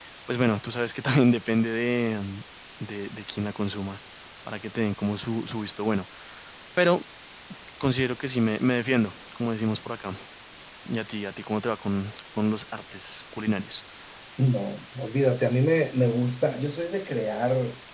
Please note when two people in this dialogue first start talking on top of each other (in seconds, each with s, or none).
none